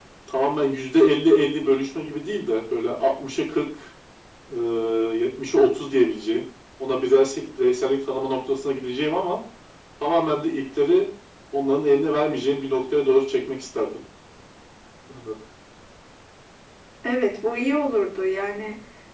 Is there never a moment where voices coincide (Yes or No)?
Yes